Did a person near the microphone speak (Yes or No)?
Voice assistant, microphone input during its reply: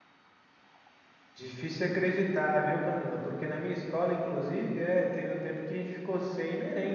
Yes